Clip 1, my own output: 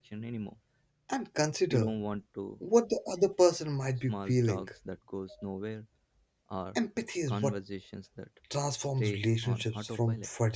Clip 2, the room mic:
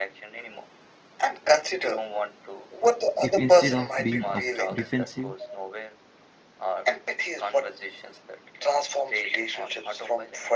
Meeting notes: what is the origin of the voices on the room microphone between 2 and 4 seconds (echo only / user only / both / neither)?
both